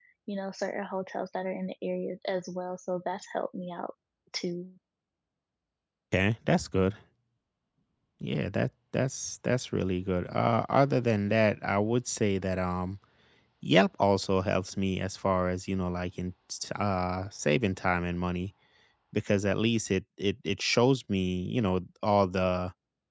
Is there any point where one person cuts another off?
No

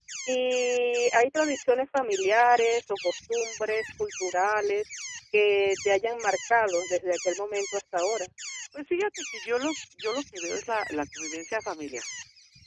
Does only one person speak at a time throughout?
Yes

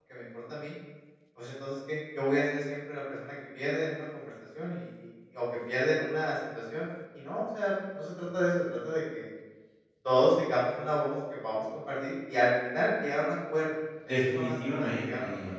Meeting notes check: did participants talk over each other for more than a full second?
Yes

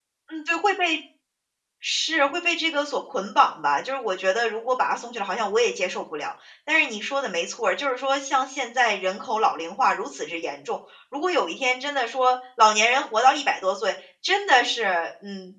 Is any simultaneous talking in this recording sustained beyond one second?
No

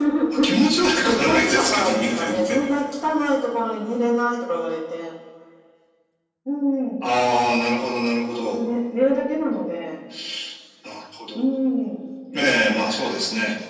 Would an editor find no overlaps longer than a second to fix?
No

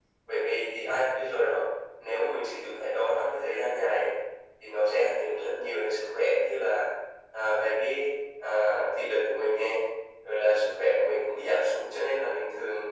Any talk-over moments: No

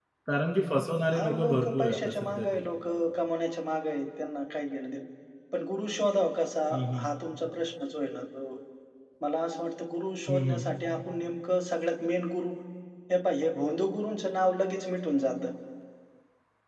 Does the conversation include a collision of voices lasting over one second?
Yes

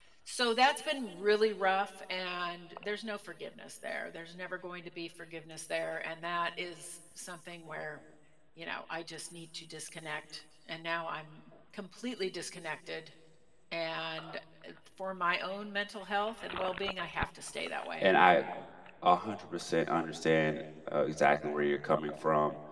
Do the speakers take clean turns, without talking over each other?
Yes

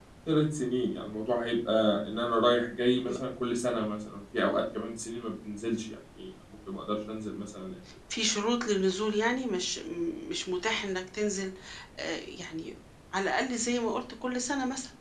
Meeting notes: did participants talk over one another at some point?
No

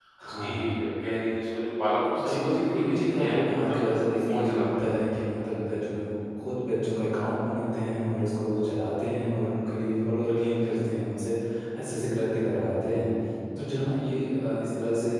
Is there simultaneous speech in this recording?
Yes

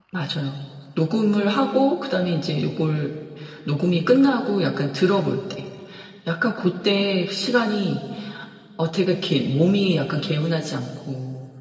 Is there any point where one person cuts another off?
No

